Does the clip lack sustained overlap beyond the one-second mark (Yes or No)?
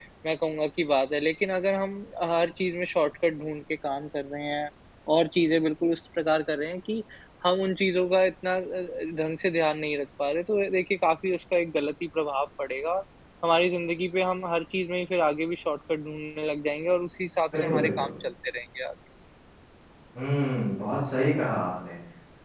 Yes